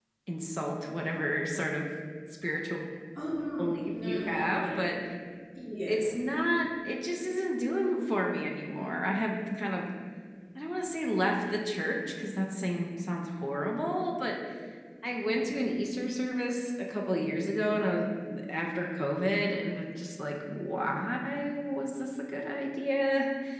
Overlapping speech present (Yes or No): Yes